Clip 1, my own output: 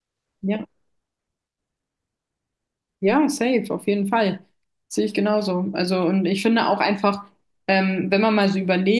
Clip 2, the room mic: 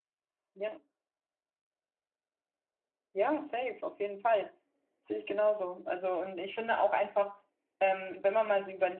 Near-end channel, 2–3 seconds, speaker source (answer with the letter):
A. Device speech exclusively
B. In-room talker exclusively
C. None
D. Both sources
C